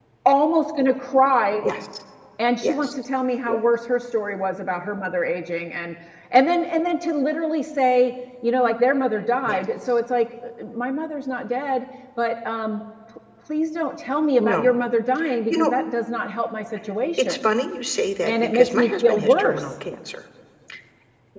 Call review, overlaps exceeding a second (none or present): present